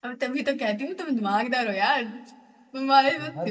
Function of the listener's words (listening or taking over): listening